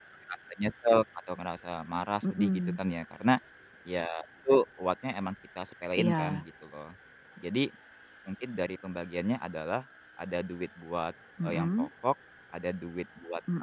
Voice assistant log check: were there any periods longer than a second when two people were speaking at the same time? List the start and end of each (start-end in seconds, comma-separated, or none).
none